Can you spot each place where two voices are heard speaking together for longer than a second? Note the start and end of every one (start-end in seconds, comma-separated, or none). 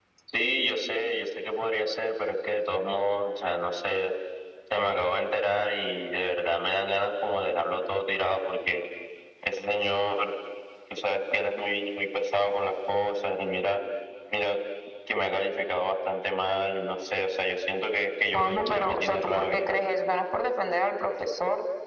18.3-19.7